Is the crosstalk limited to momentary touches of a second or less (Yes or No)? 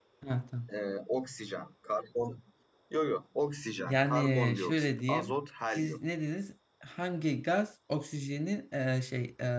No